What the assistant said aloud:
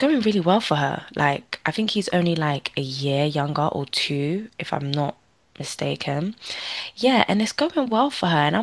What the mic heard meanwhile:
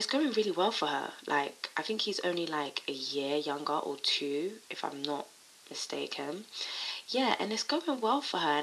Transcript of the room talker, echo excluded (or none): none